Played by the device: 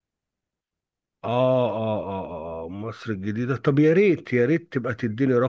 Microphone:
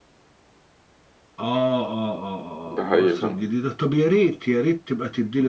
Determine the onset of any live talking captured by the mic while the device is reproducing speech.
2.7 s

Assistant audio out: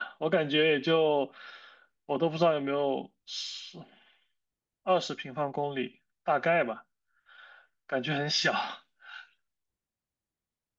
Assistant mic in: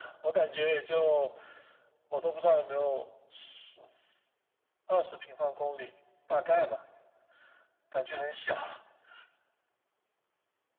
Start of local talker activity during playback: none

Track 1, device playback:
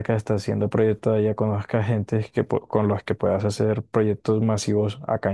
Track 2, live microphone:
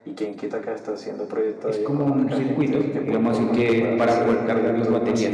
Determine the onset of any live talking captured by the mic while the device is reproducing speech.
1.6 s

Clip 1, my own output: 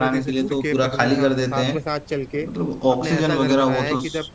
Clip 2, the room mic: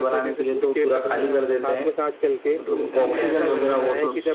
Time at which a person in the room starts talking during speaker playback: 2.7 s

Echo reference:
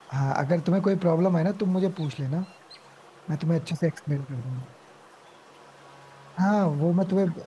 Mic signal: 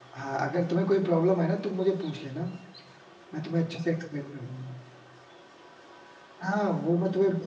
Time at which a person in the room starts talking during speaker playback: none

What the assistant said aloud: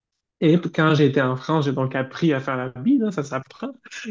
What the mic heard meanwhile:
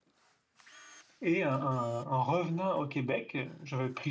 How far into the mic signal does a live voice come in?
1.2 s

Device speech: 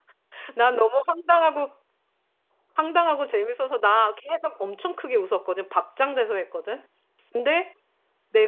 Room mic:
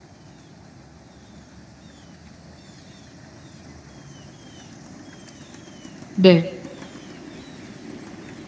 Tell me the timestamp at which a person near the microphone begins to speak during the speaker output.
6.1 s

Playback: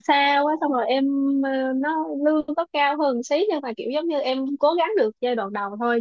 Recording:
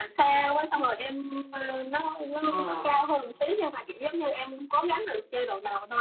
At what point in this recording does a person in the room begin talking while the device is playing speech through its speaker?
2.5 s

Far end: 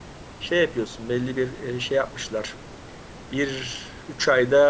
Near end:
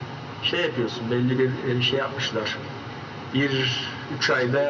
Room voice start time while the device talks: none

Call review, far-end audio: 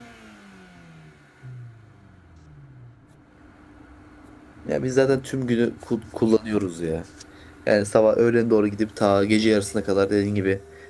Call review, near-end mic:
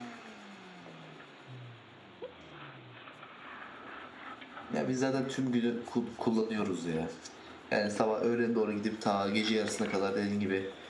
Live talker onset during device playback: none

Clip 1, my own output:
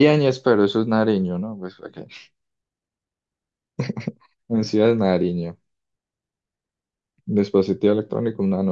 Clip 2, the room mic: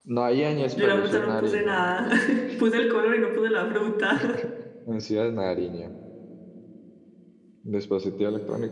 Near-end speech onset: 0.8 s

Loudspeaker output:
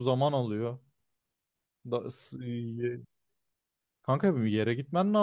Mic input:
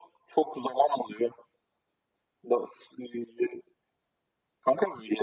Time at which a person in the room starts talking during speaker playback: none

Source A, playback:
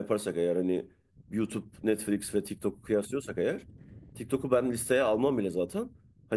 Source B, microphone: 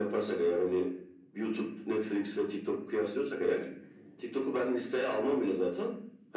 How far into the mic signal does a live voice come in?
none

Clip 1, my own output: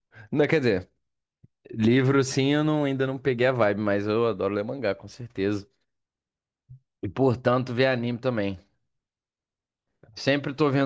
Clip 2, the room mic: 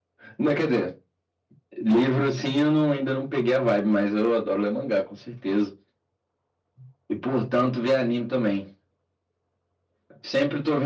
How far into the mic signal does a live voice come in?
none

